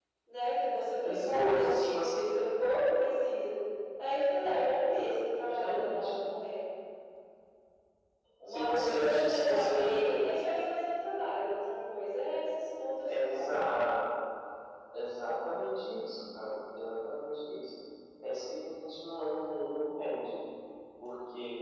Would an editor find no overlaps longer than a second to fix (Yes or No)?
No